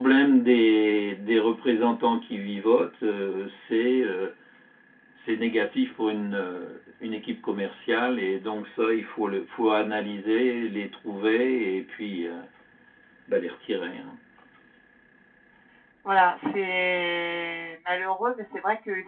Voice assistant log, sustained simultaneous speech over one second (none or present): none